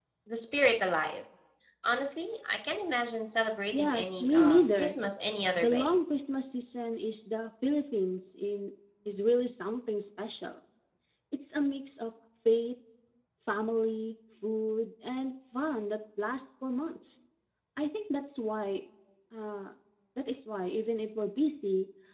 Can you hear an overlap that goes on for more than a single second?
Yes, from 3.7 s

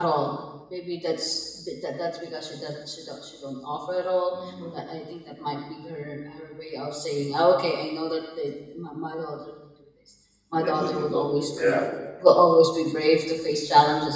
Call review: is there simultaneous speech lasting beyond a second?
Yes, from 10.6 s

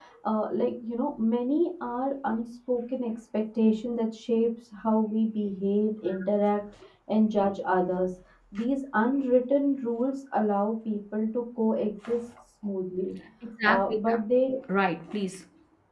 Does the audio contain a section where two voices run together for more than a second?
No

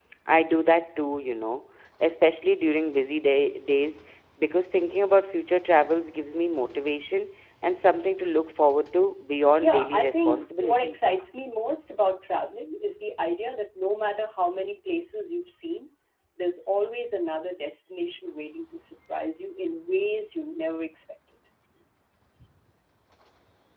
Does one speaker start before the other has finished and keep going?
Yes, from 9.6 s

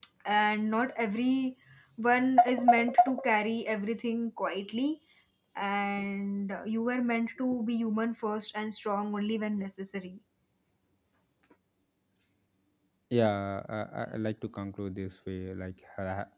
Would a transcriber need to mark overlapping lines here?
No

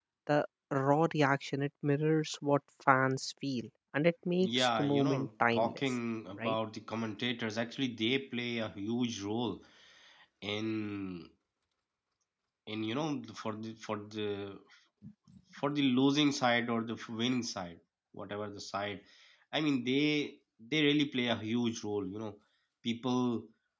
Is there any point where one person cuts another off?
Yes, from 4.4 s

